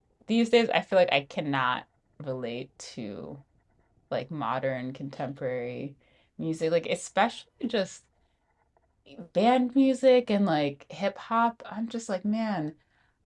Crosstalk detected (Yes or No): No